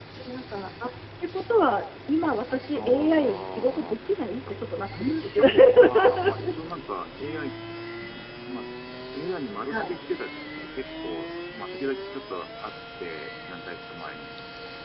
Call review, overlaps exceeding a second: present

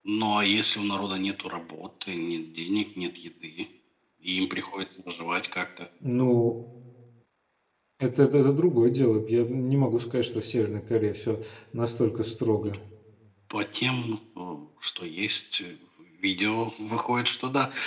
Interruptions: none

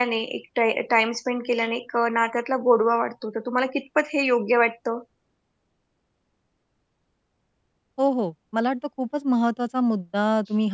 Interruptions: none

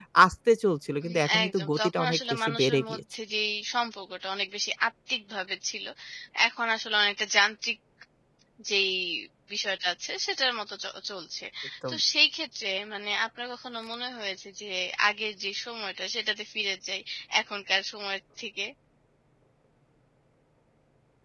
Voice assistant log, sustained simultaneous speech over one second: present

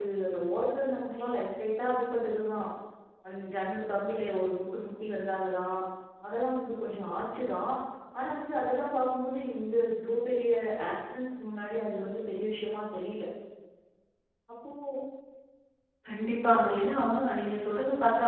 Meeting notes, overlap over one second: none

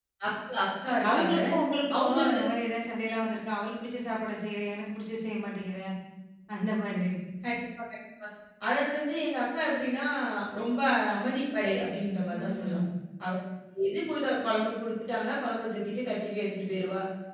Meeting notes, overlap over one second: none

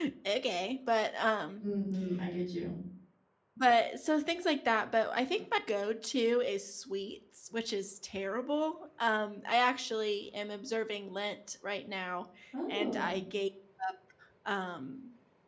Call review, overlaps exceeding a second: none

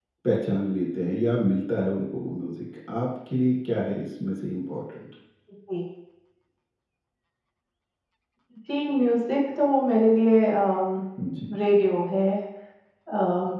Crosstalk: none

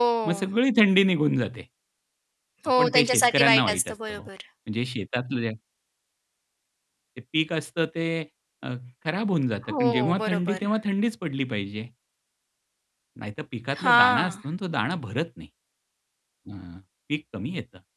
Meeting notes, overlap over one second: present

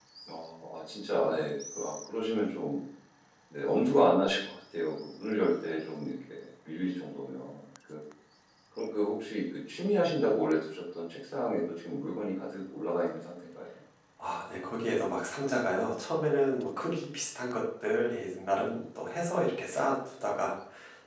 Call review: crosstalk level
none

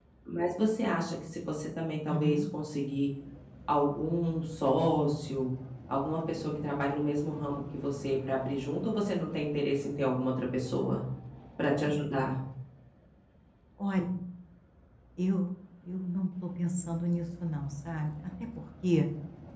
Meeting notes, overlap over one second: none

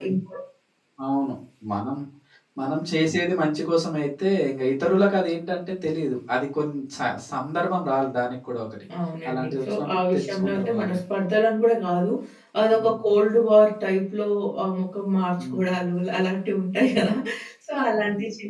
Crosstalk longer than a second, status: present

